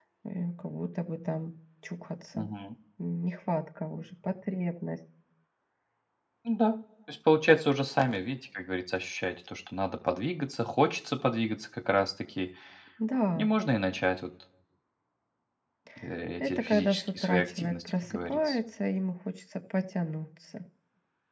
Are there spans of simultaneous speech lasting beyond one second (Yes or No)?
Yes